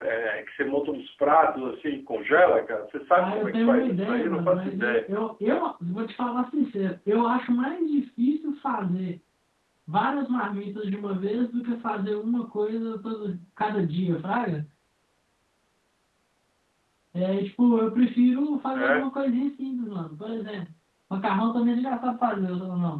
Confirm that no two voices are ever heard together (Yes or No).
No